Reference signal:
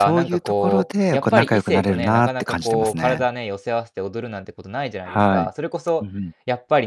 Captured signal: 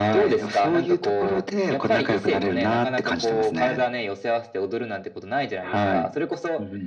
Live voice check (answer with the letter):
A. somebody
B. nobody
B